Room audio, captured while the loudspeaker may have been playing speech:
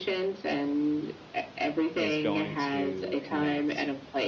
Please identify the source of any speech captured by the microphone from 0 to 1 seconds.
echo only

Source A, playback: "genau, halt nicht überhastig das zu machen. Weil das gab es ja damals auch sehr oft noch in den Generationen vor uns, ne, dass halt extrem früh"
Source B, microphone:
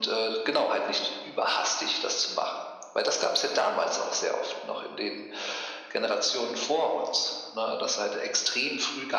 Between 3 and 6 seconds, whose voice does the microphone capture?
echo only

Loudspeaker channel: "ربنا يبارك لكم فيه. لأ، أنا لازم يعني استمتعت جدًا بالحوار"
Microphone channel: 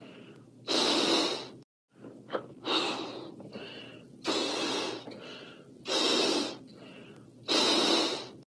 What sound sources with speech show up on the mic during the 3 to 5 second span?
neither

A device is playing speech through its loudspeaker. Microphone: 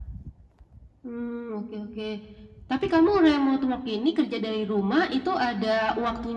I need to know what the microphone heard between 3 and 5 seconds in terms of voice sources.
echo only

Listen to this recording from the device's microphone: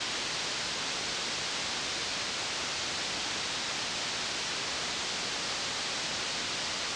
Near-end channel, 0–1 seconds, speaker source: neither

